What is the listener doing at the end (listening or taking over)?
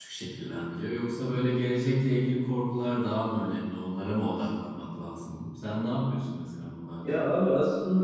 taking over